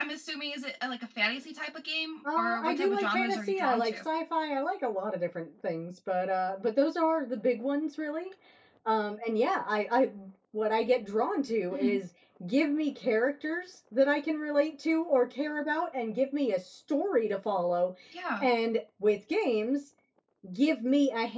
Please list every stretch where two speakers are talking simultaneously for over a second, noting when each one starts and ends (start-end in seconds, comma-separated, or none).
2.4-4.0